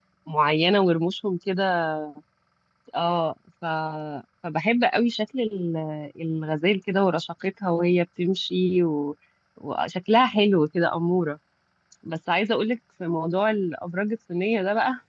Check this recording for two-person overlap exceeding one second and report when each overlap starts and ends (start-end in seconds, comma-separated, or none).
none